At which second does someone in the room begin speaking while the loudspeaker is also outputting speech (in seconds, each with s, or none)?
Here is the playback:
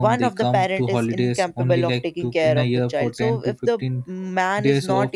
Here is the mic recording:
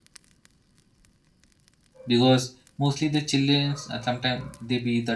2.1 s